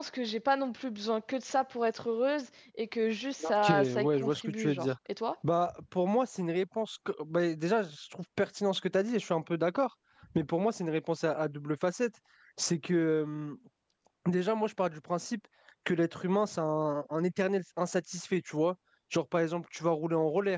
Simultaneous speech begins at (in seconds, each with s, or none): 3.4 s